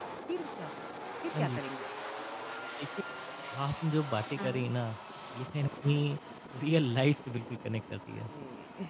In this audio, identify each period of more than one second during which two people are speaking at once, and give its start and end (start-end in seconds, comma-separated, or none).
none